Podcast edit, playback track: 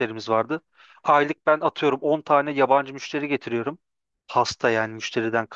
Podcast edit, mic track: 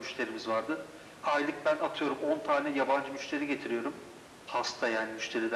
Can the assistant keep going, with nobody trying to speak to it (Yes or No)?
Yes